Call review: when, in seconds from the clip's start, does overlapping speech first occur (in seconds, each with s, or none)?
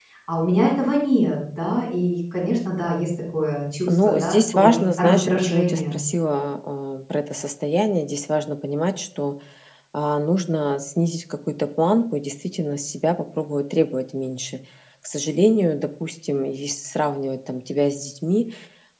3.9 s